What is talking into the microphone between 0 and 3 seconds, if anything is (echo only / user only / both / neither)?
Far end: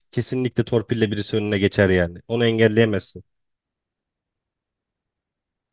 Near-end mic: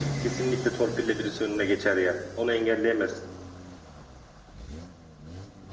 echo only